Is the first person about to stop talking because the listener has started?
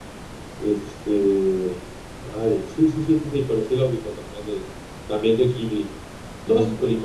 No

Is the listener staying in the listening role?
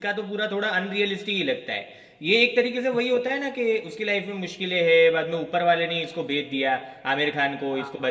Yes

